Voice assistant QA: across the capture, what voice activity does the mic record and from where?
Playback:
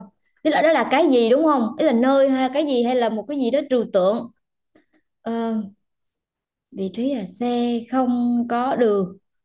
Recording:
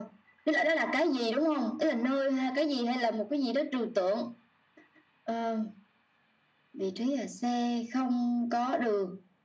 echo only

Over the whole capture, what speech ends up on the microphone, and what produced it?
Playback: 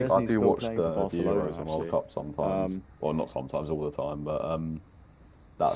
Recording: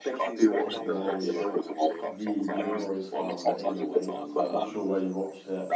both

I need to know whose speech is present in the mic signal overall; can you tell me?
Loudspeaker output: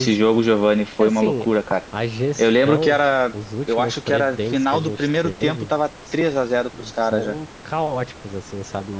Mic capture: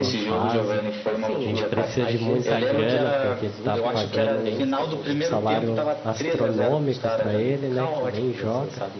both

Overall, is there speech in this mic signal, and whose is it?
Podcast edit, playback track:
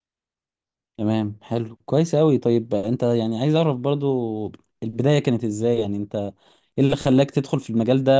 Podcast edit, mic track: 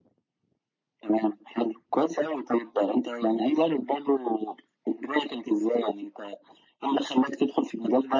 echo only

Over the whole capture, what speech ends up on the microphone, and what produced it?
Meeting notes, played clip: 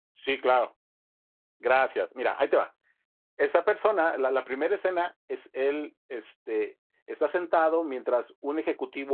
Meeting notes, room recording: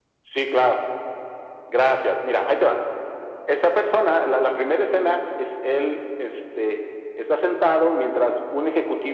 echo only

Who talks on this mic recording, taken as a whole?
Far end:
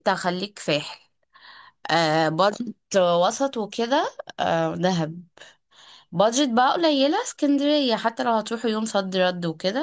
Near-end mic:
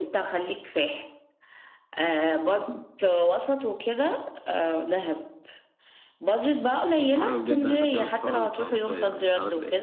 both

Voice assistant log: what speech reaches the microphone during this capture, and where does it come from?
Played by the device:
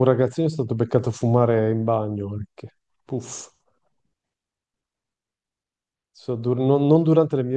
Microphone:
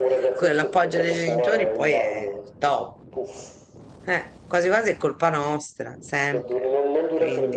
both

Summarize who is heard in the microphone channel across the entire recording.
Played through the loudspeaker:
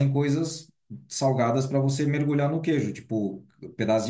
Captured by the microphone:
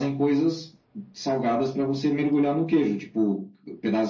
echo only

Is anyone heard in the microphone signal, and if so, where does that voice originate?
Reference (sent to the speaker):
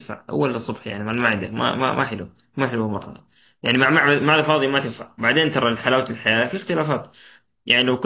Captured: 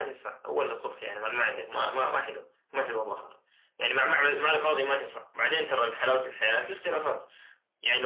echo only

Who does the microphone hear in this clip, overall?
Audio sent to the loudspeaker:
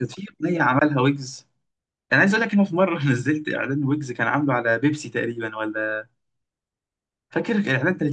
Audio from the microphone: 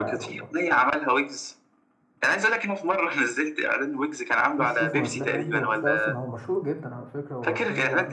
both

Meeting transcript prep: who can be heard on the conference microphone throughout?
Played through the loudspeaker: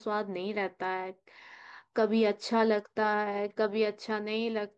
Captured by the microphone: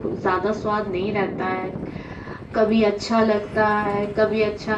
echo only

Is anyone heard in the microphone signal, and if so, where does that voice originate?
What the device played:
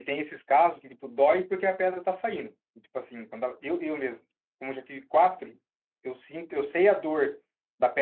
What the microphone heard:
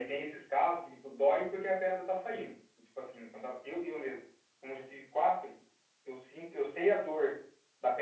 echo only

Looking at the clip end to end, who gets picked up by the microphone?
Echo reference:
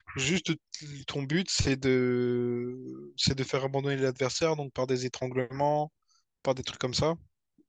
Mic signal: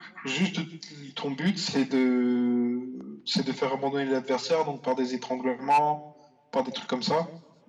echo only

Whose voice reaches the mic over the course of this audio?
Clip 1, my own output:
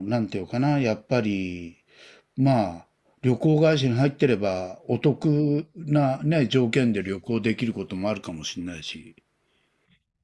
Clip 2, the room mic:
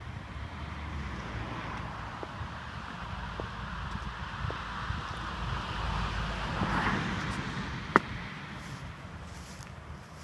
neither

